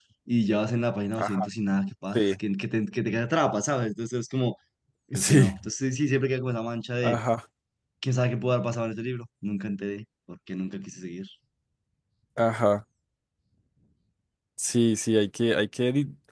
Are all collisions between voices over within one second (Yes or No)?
Yes